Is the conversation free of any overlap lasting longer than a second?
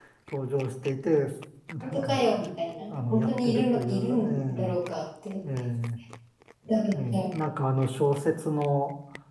No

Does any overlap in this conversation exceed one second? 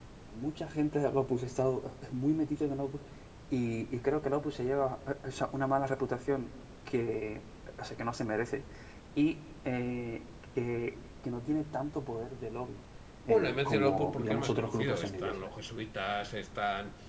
Yes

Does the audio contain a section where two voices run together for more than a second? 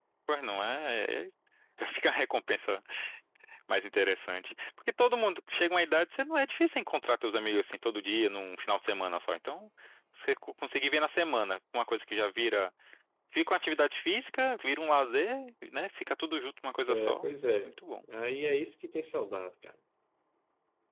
No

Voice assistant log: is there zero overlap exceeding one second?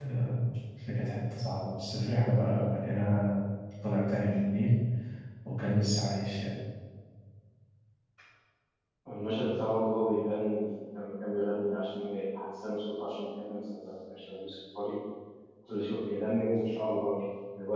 Yes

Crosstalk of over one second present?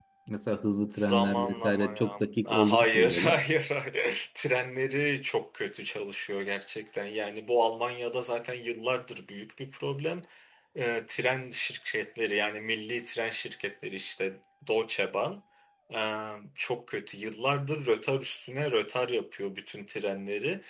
Yes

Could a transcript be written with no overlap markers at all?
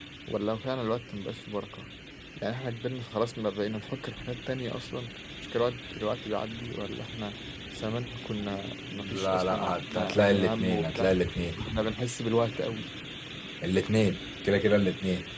No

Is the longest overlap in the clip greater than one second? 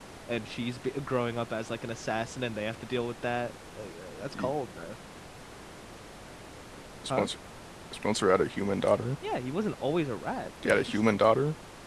No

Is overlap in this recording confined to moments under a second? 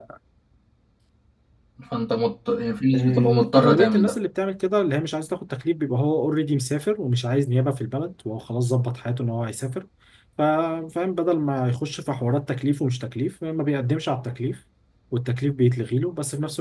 No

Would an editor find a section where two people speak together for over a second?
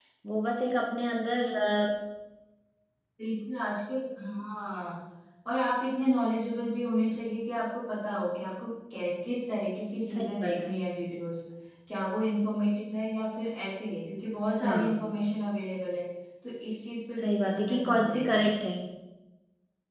Yes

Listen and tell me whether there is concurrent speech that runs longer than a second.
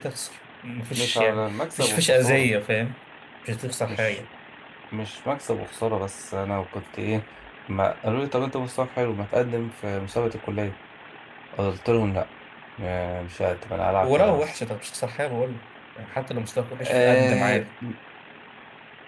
Yes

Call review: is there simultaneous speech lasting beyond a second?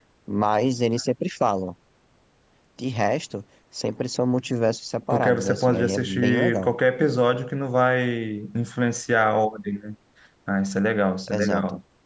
Yes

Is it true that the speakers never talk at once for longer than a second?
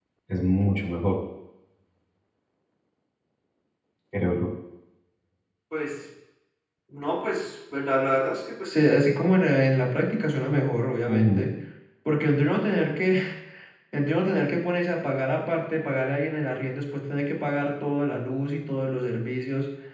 Yes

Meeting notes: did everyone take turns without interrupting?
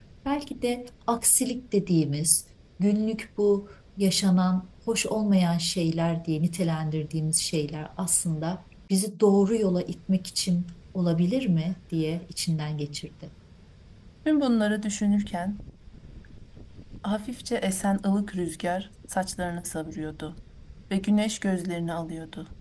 Yes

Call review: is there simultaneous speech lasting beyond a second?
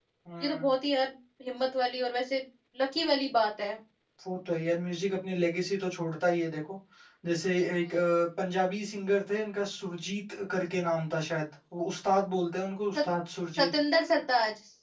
No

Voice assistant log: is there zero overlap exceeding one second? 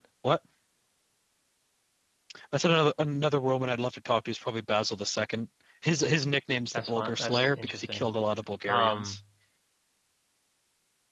No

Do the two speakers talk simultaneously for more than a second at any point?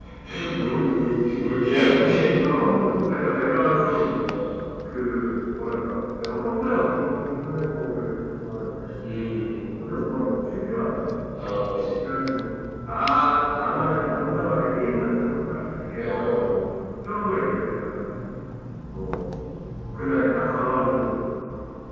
No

